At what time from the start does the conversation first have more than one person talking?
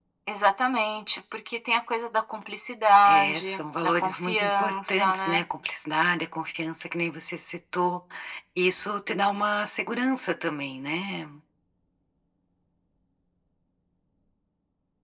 3.0 s

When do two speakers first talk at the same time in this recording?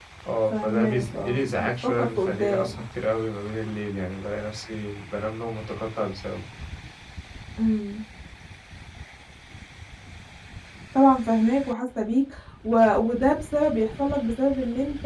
0.5 s

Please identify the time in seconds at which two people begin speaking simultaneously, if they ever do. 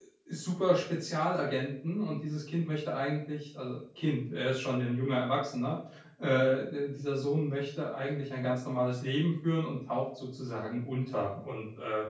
none

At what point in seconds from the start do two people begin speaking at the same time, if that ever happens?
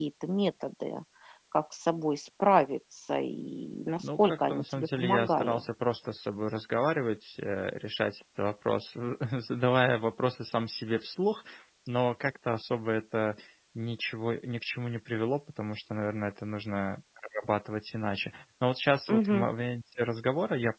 4.2 s

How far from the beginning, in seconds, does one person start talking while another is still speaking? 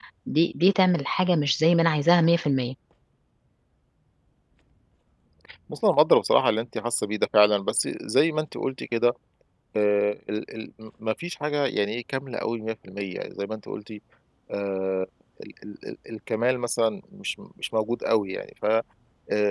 none

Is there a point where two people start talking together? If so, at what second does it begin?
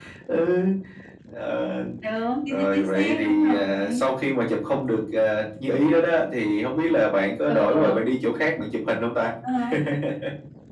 2.5 s

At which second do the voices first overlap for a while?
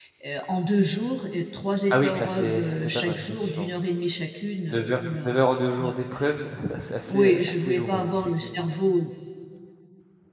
1.9 s

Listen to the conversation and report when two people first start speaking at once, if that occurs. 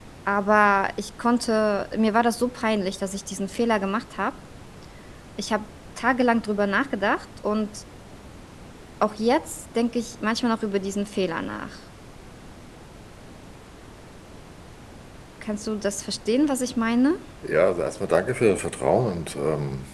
none

